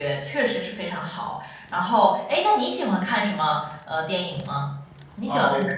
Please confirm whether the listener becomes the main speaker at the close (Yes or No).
Yes